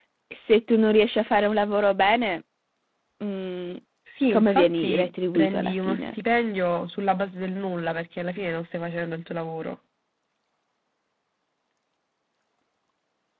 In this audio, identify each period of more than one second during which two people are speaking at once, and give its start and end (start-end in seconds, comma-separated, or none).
4.3-6.1